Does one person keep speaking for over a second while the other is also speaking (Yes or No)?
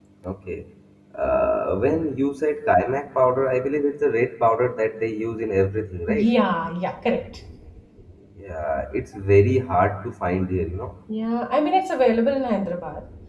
No